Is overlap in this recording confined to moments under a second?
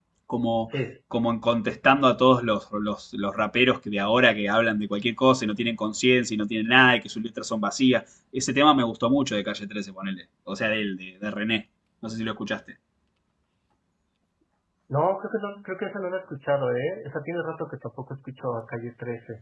Yes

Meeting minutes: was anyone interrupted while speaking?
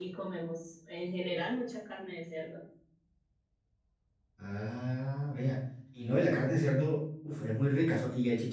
No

